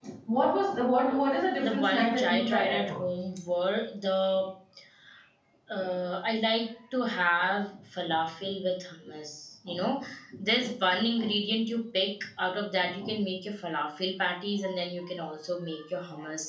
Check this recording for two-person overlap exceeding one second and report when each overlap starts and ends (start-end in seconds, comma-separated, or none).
1.6-3.1